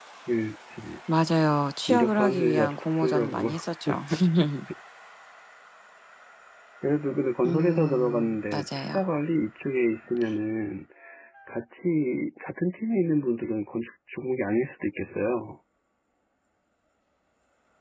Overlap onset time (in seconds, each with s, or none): 1.9 s